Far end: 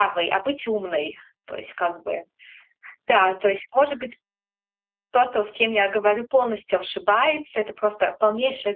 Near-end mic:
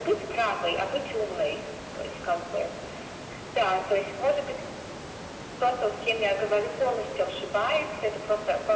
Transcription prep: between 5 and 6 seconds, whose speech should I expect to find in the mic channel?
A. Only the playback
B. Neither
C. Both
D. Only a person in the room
A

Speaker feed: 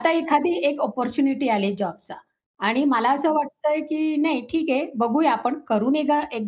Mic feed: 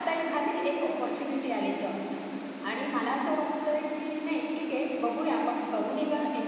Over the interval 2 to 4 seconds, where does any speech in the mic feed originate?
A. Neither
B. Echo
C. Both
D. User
B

